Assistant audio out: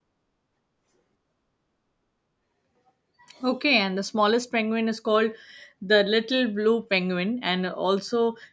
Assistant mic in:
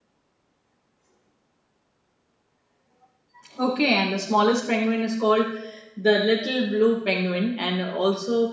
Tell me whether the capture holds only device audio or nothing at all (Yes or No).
Yes